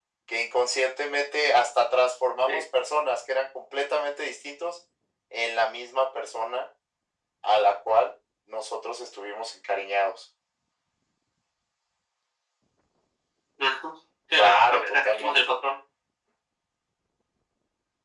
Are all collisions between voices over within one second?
No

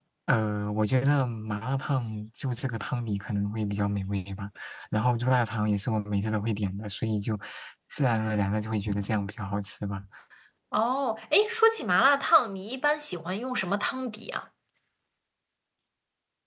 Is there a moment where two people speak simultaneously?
No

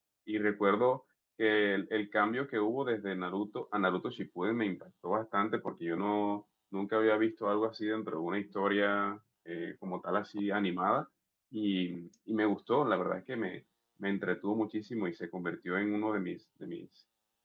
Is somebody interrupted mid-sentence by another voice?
No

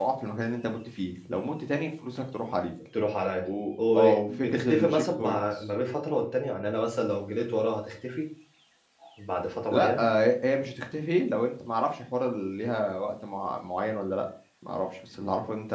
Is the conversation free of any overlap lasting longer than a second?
No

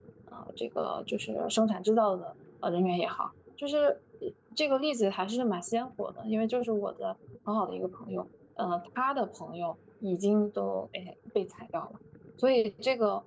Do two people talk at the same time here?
No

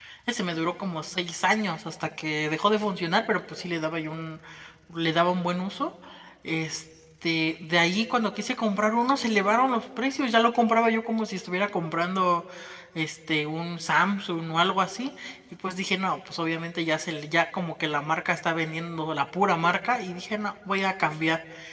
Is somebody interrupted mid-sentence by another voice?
No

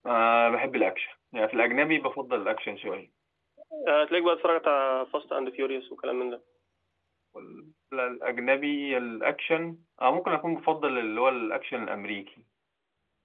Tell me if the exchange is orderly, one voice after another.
Yes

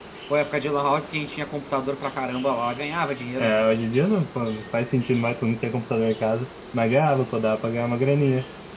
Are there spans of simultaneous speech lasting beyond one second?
No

